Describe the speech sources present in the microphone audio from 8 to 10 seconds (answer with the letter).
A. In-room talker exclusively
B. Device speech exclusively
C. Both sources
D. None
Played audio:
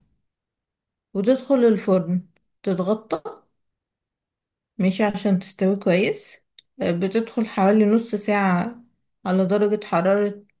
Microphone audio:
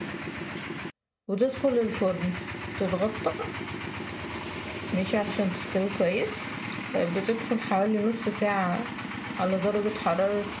B